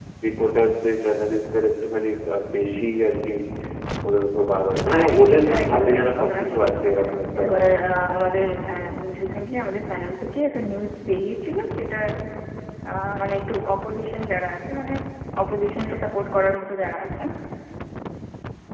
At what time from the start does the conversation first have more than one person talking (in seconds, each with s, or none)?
4.9 s